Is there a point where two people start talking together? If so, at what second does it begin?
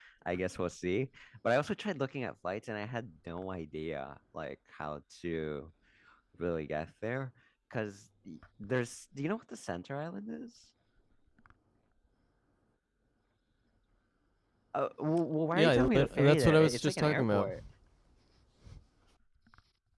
15.5 s

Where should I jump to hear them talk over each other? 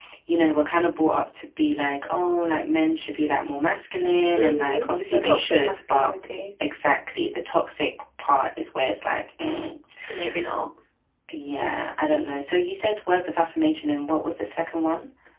4.4 s

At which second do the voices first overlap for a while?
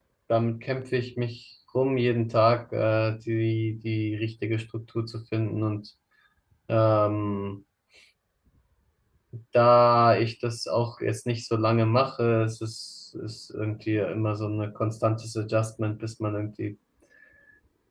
none

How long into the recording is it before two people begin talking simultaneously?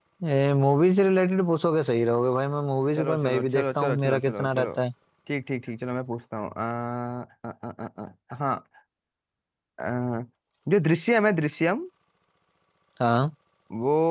3.0 s

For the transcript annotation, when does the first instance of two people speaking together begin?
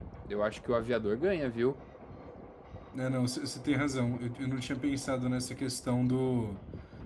none

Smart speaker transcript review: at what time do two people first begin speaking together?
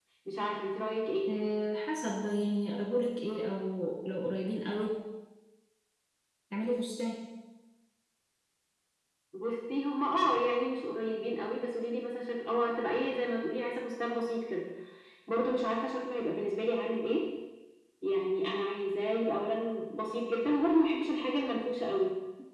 none

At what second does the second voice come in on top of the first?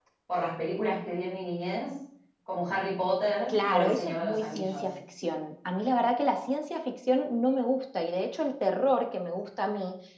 3.5 s

